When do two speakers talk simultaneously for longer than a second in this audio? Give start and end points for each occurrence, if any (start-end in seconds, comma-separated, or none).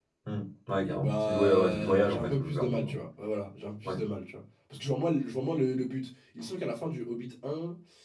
0.8-3.0